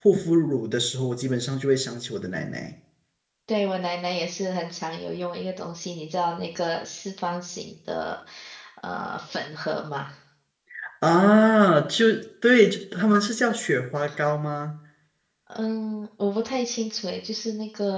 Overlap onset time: none

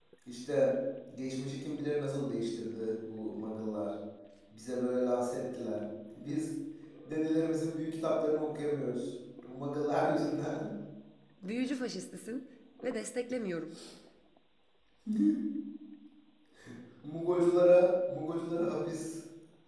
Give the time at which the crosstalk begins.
none

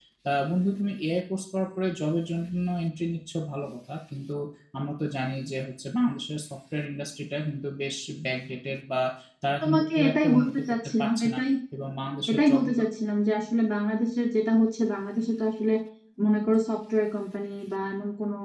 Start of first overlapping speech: 9.6 s

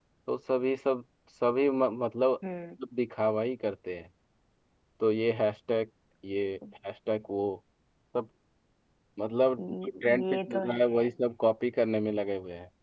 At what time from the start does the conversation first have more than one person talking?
9.6 s

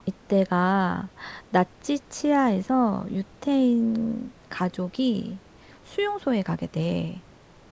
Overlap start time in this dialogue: none

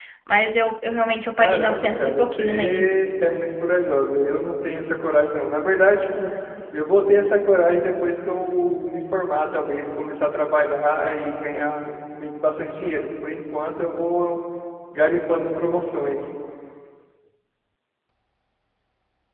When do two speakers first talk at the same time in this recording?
1.4 s

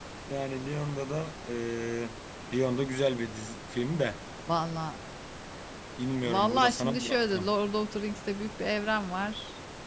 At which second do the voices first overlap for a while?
6.2 s

